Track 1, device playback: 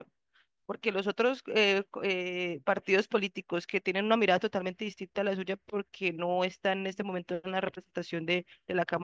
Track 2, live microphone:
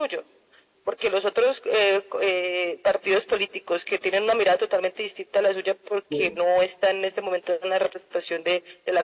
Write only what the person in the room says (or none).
Po-